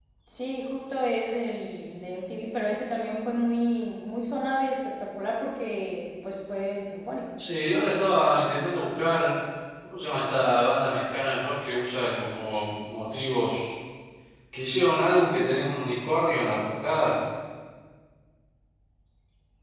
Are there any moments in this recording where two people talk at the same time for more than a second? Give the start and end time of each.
none

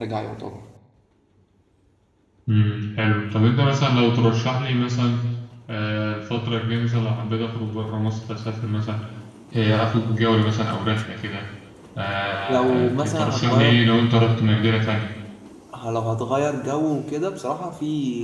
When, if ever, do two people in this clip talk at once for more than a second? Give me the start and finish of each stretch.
12.5-13.8

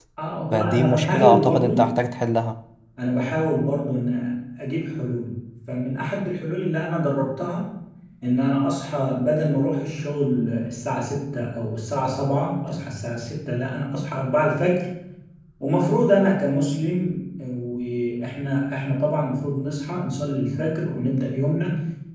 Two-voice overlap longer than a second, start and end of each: 0.5-1.7

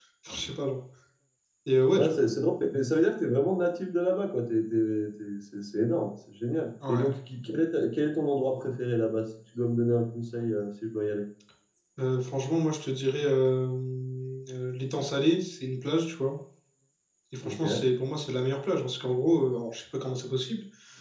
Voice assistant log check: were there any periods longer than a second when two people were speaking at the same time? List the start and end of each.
none

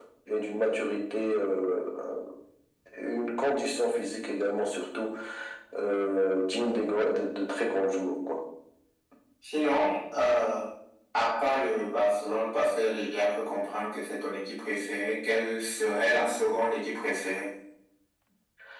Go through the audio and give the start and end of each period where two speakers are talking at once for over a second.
none

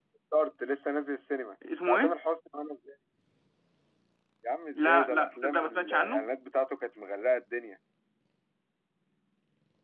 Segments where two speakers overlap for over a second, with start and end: 4.8-6.2

